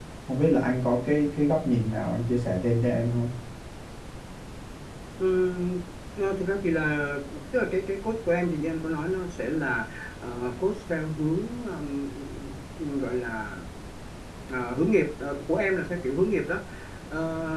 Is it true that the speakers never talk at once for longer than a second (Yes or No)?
Yes